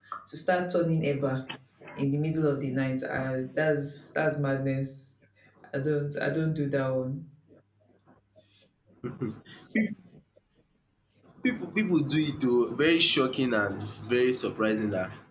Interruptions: none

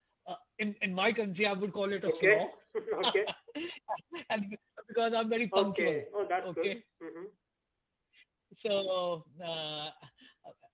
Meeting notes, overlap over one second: none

